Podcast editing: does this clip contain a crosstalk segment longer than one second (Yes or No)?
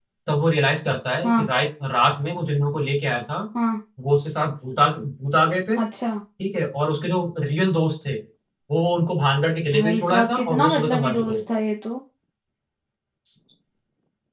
Yes